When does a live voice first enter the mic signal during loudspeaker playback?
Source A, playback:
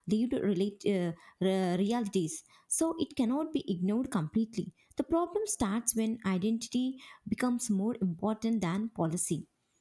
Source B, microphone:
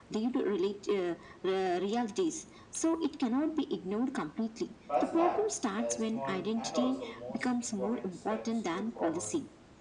4.9 s

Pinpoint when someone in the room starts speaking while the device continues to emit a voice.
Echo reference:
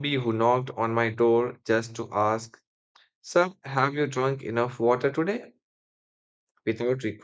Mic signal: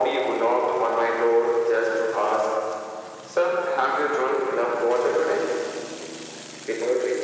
none

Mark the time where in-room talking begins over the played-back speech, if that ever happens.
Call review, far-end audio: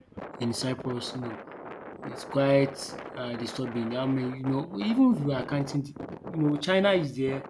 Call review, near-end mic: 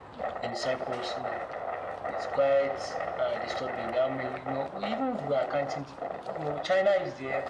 none

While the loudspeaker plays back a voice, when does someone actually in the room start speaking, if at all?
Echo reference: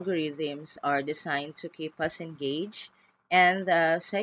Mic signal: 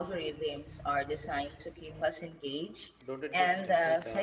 3.0 s

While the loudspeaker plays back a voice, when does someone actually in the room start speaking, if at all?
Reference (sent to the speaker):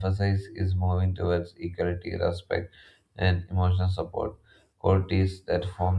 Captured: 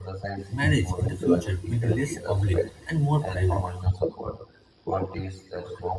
0.5 s

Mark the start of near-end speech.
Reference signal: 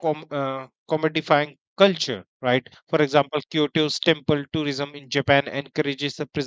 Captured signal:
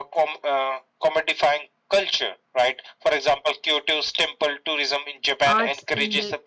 5.4 s

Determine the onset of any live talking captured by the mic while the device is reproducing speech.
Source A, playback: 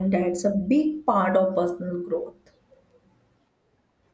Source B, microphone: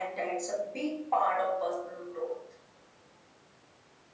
none

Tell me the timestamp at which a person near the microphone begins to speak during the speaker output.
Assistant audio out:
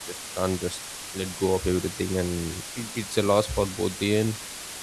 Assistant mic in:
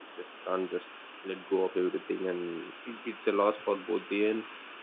none

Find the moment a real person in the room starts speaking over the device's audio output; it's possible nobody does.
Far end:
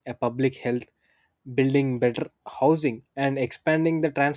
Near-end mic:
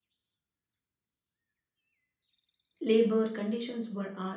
2.8 s

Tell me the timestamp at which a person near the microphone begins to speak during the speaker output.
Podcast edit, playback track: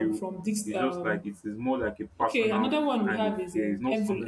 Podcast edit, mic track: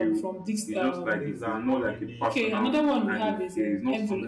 1.2 s

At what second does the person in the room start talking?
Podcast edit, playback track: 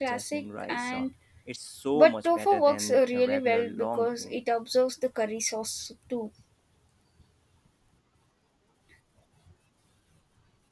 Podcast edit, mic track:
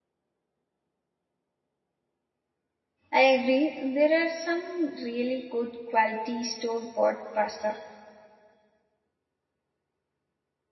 3.1 s

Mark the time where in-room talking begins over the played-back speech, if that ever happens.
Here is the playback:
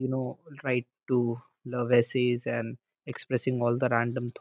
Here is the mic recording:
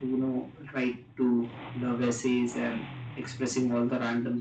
none

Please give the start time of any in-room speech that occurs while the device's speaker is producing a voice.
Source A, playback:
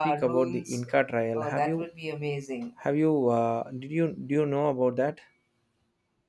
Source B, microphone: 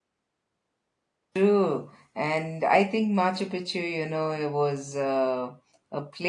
1.4 s

